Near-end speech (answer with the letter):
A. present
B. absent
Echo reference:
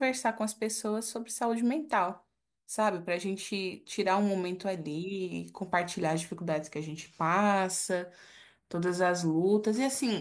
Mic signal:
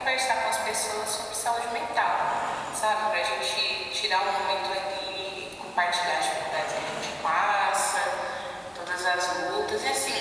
B